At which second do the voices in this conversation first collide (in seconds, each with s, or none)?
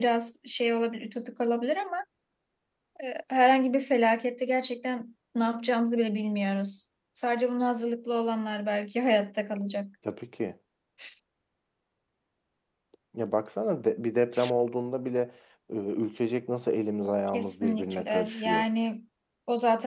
17.3 s